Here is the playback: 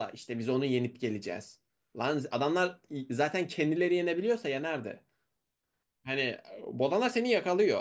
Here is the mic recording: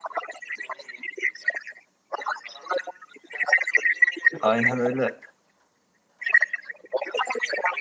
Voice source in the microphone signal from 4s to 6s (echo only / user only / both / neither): both